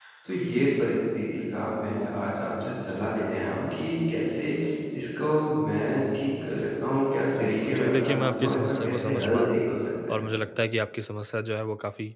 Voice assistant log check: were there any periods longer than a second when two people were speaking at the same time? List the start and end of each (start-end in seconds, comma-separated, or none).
7.4-9.6